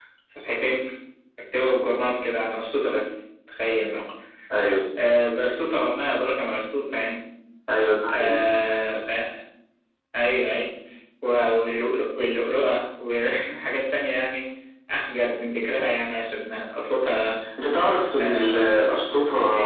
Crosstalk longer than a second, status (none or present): none